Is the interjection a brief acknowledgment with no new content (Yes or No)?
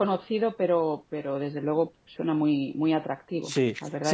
No